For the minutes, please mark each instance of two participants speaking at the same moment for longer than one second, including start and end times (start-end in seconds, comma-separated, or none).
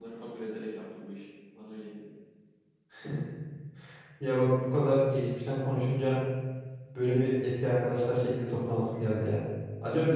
none